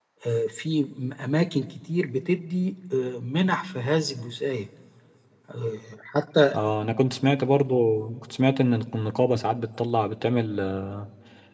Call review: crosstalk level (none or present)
none